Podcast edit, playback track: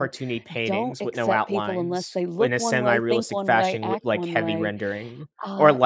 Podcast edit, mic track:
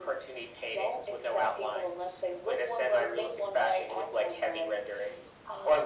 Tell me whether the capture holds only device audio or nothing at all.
Yes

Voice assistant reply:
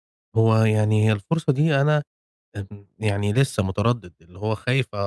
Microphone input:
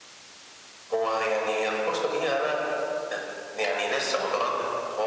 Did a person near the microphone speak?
No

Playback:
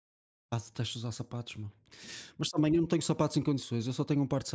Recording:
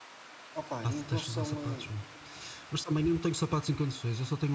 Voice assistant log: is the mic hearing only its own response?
No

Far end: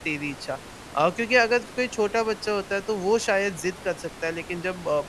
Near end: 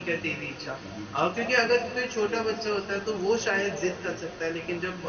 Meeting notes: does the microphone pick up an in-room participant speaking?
Yes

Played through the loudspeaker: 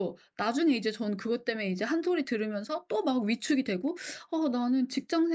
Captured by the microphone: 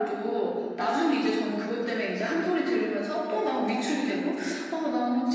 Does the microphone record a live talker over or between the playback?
No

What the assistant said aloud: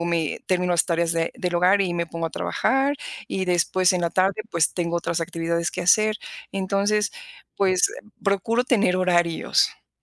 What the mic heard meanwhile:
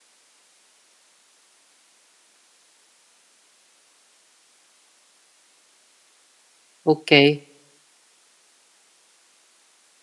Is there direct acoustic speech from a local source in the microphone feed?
Yes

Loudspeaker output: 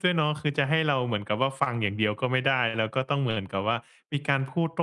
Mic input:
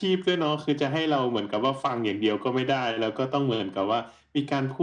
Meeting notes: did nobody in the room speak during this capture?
Yes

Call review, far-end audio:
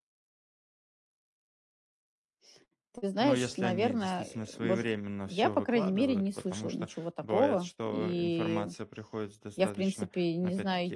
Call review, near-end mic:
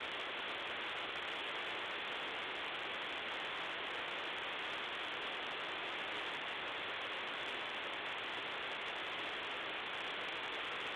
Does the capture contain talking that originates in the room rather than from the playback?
No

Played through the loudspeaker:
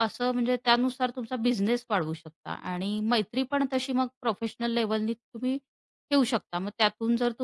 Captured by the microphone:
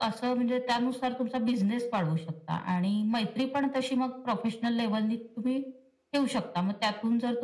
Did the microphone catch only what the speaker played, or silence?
Yes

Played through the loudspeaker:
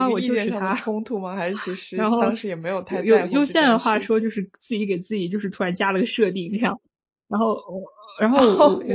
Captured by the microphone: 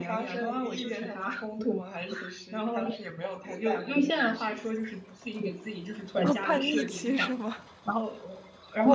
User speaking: Yes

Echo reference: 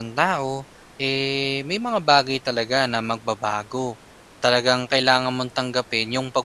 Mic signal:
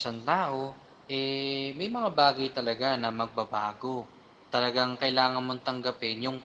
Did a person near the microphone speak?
No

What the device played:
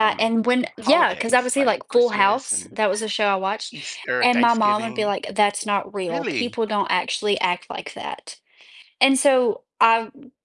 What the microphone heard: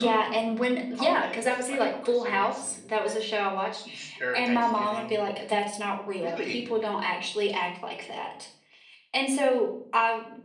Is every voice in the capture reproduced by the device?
Yes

